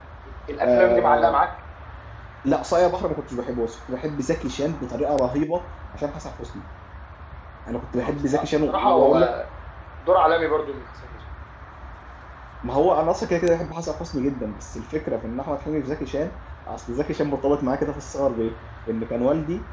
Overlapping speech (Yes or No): Yes